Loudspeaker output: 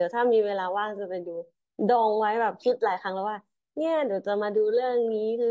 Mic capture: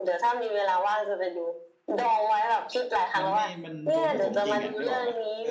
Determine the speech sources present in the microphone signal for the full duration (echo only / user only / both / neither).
both